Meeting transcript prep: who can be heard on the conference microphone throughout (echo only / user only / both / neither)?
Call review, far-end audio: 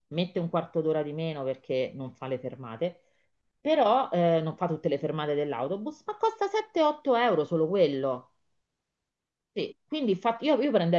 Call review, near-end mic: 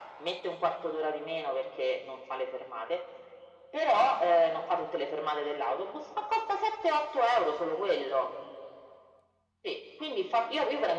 echo only